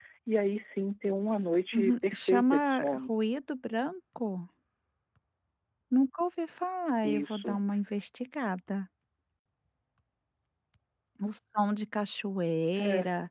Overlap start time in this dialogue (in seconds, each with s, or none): 1.7 s